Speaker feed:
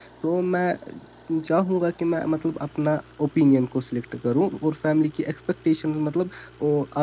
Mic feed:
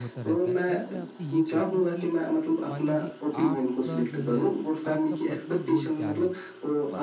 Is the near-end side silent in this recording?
No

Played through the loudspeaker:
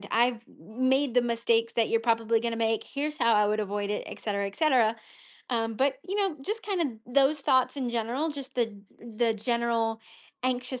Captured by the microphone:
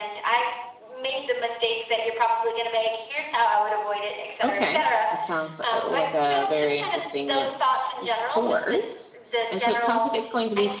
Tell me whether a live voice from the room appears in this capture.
Yes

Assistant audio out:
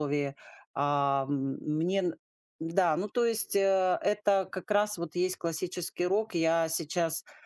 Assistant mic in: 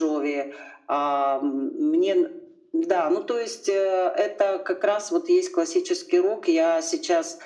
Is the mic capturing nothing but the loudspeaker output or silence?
Yes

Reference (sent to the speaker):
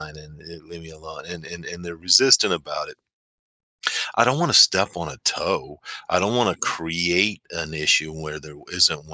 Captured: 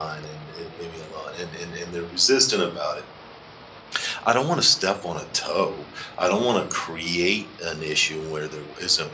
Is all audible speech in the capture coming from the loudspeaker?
Yes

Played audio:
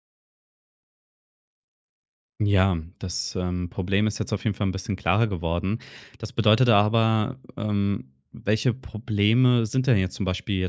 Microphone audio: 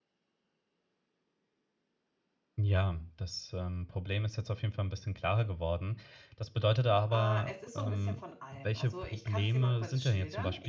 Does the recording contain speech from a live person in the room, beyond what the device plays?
Yes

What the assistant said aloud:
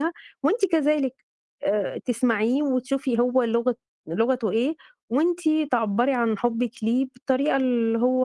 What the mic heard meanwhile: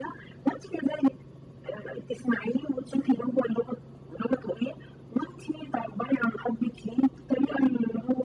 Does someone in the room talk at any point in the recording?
No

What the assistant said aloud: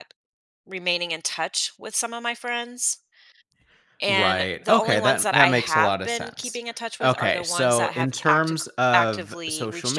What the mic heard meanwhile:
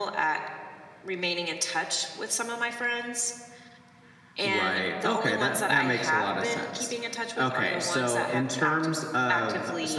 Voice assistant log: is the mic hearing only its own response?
Yes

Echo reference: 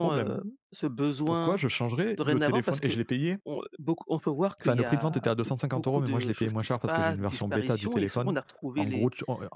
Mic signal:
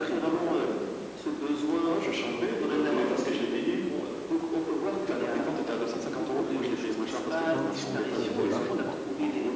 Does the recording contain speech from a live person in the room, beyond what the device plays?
Yes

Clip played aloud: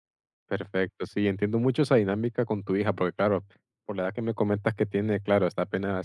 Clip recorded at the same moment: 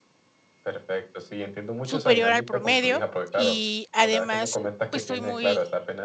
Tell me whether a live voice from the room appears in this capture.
Yes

